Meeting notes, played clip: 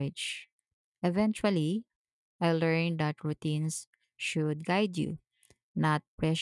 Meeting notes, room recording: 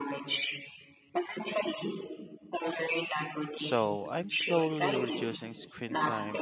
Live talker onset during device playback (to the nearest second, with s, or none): 4 s